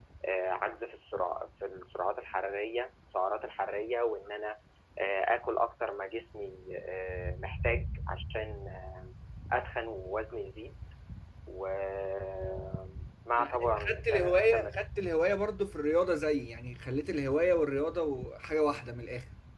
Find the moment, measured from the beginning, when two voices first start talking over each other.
13.4 s

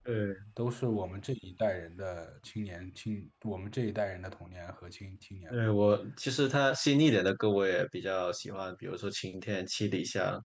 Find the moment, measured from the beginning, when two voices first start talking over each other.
none

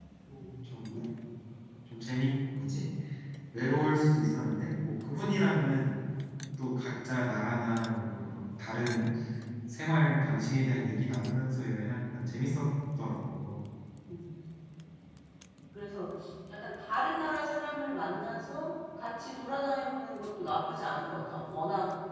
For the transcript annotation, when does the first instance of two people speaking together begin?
none

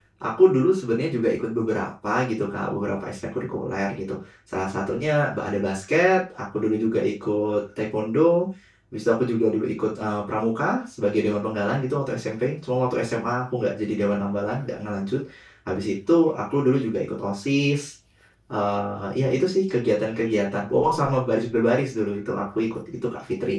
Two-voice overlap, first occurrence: none

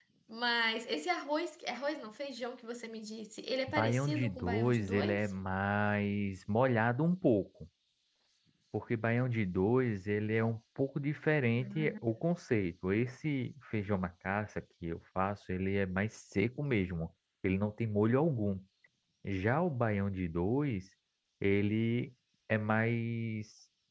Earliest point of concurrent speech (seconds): 3.7 s

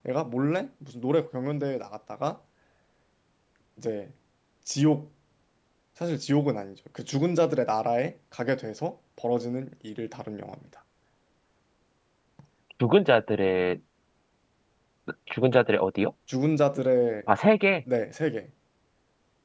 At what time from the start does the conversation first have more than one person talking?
none

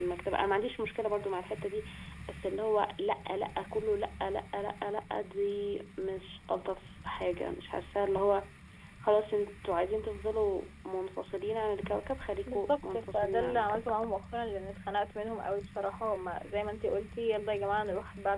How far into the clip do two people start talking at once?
12.5 s

